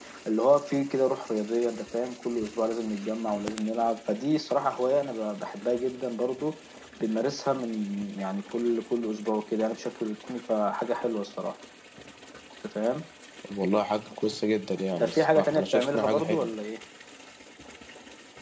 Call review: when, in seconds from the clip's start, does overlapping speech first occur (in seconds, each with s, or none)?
15.0 s